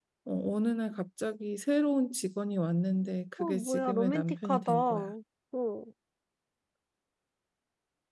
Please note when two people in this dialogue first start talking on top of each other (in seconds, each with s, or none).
3.4 s